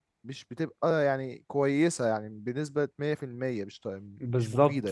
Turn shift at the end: Yes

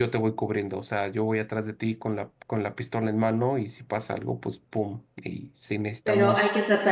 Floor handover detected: Yes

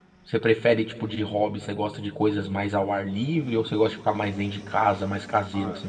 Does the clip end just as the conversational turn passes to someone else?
Yes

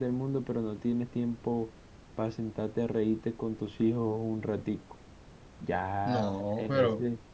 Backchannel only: Yes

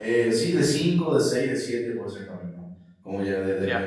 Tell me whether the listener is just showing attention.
Yes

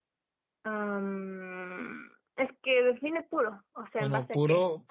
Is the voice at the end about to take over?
Yes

